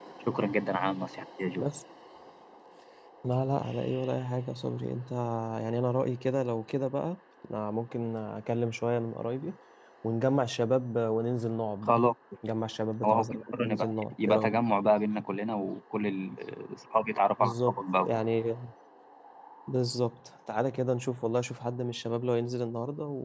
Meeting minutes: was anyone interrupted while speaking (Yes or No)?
Yes